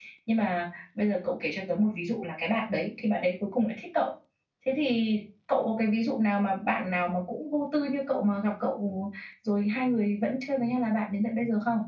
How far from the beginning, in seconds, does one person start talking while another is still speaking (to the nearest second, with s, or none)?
none